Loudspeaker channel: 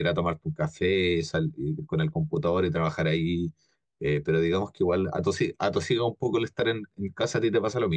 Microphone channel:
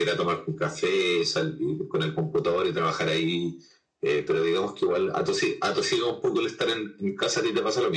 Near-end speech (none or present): none